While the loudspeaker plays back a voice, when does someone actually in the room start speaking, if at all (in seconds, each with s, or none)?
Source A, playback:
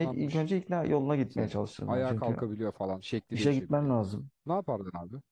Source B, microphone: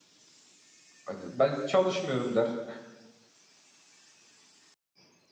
1.1 s